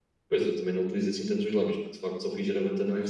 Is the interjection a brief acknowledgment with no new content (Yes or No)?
Yes